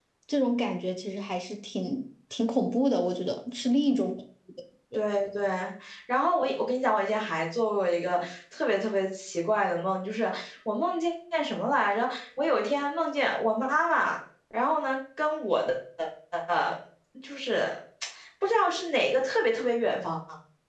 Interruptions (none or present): none